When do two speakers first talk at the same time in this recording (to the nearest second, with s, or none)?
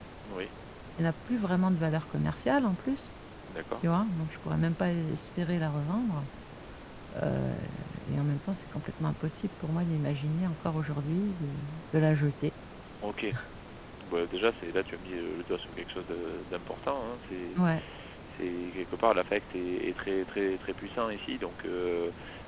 none